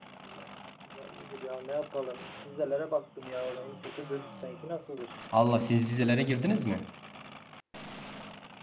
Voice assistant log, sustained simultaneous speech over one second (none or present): none